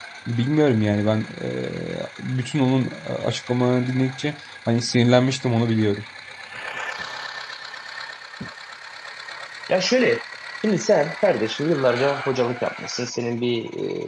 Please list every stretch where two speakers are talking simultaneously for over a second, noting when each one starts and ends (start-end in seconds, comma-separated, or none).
none